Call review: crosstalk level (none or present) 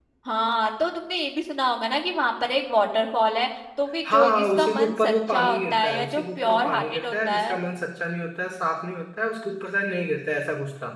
present